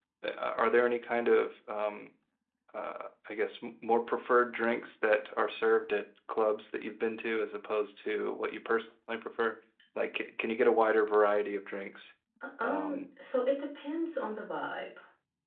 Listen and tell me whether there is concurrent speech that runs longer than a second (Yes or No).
No